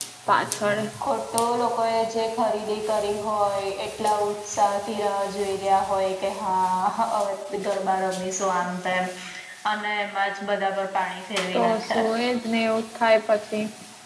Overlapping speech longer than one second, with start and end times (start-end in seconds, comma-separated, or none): none